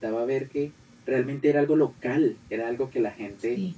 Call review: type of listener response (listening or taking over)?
listening